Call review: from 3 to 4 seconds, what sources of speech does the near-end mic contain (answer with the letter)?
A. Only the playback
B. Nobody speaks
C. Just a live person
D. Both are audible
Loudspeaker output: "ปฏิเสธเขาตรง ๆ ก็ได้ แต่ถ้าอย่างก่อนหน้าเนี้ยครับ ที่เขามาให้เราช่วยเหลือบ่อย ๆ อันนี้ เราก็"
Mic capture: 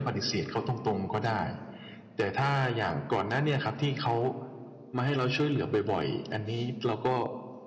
A